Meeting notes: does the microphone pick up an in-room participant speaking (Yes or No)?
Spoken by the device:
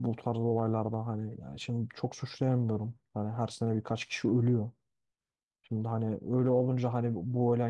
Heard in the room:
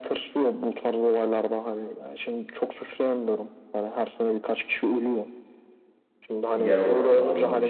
Yes